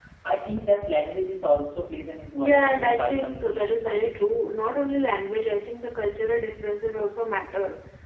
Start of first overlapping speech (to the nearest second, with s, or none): 2 s